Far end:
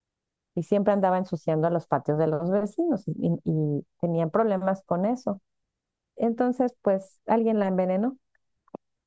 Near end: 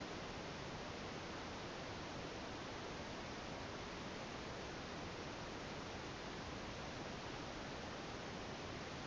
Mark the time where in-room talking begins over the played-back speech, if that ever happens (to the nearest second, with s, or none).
none